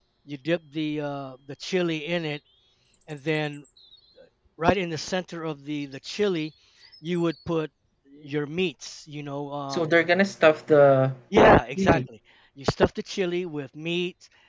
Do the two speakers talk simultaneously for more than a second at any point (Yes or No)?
No